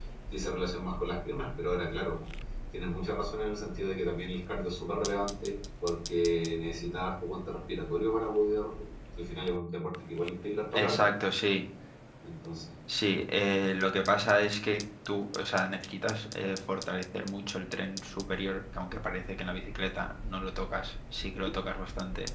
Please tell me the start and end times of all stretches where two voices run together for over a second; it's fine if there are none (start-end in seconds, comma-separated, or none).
none